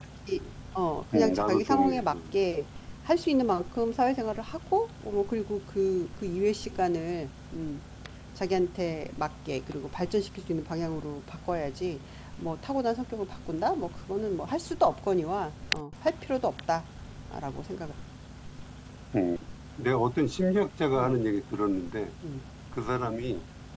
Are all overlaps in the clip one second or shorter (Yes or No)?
No